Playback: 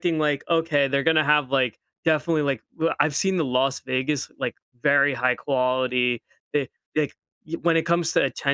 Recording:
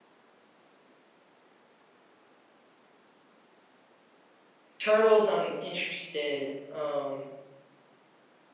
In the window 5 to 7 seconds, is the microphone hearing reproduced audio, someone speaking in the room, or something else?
user only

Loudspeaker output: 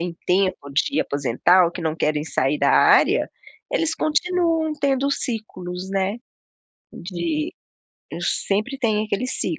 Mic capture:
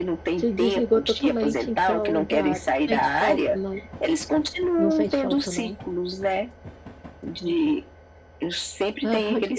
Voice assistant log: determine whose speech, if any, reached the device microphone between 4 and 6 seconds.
both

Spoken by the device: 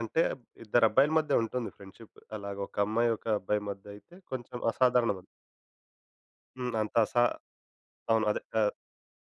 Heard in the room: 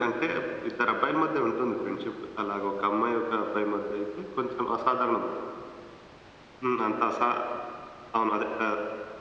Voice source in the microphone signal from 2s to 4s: echo only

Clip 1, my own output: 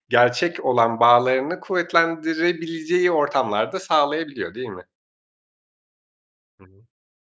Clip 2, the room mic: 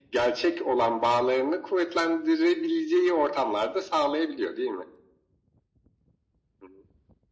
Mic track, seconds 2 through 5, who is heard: echo only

